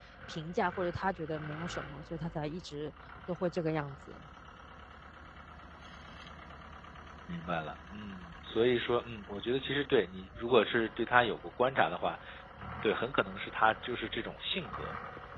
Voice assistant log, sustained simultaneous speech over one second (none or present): none